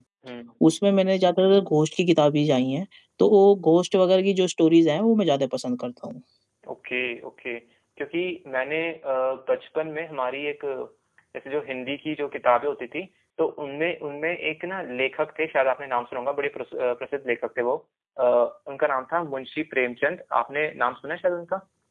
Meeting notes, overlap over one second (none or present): none